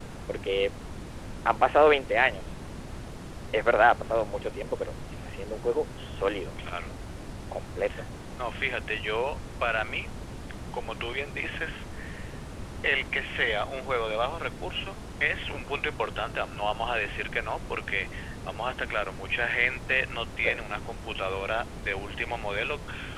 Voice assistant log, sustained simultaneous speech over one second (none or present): none